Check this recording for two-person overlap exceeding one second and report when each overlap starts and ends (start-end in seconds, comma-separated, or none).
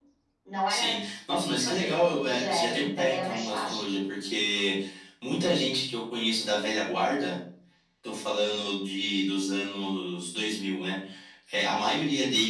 1.6-3.8